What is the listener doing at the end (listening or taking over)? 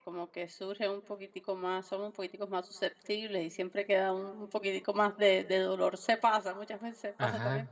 listening